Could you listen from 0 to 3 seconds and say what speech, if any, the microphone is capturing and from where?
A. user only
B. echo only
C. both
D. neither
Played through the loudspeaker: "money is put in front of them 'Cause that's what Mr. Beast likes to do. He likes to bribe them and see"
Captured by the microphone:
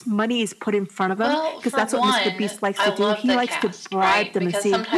C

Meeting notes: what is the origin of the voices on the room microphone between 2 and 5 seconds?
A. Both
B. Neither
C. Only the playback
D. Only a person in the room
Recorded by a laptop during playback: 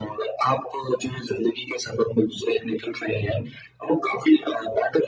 C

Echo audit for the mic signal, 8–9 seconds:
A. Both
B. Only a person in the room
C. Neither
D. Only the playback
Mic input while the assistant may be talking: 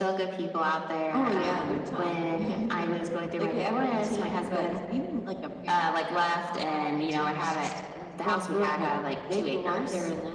D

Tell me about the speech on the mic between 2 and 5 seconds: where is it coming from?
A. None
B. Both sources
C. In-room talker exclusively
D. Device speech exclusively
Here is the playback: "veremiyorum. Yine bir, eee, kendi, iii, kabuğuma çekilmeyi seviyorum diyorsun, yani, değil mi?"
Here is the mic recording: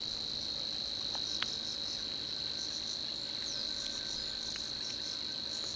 A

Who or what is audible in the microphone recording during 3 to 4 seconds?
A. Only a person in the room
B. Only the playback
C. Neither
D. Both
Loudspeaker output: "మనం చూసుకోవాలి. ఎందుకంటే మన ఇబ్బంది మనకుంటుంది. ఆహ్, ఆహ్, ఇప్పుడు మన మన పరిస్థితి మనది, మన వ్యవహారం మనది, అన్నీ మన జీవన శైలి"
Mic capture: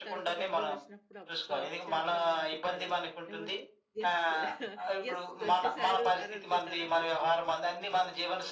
D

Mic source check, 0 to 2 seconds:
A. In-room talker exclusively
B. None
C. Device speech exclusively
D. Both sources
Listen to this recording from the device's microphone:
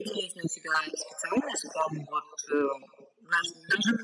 C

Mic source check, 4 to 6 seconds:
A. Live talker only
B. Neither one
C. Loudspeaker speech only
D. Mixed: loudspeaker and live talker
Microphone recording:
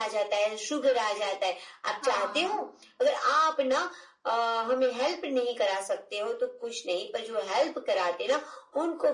C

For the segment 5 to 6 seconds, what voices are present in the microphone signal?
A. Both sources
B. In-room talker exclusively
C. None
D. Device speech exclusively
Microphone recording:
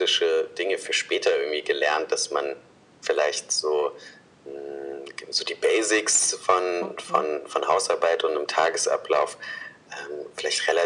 D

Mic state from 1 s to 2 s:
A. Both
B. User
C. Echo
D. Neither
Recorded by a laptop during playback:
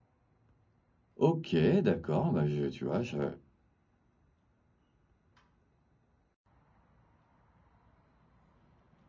B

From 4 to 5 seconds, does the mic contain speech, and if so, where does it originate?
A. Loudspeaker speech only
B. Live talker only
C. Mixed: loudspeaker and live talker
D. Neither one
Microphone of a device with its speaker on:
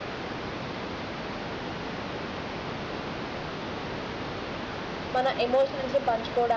D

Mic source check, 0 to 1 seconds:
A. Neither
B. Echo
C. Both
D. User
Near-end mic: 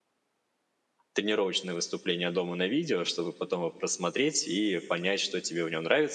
A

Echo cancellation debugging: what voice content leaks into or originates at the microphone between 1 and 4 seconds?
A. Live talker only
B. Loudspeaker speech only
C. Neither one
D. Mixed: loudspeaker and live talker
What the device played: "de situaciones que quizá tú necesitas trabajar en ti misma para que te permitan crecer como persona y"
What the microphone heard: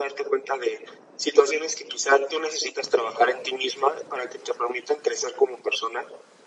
B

